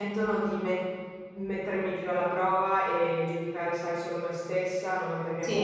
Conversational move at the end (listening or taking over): listening